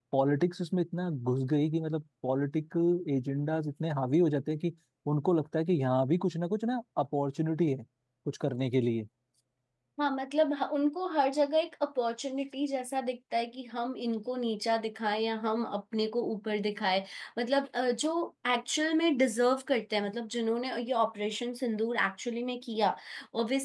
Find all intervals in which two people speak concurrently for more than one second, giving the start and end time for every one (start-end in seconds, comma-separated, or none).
none